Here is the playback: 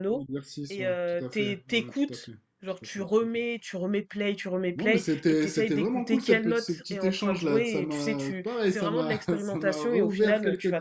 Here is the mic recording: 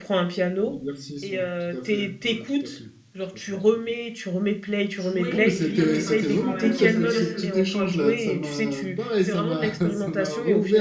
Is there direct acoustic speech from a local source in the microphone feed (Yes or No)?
Yes